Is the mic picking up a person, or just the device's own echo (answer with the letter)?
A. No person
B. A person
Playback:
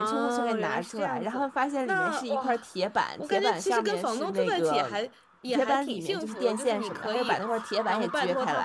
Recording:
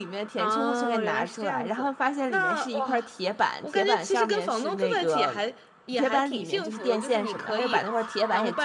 A